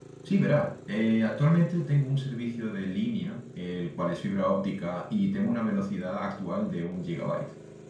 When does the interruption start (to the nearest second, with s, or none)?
none